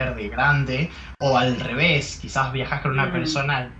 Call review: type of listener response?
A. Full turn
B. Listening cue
B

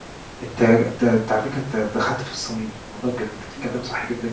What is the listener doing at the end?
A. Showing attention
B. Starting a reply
A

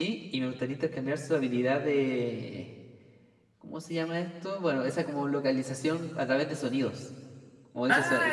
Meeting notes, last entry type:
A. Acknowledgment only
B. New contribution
A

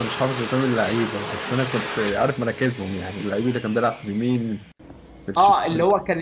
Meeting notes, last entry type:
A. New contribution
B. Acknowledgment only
A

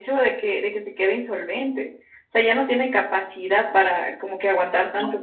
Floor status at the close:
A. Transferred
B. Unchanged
B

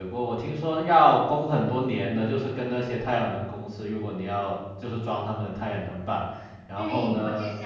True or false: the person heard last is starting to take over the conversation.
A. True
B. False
A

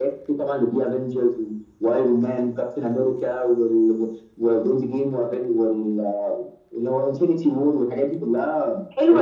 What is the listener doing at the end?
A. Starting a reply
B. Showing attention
A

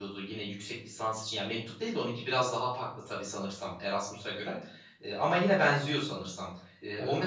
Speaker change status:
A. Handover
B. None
B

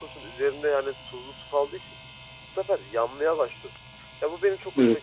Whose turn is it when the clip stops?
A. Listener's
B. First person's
B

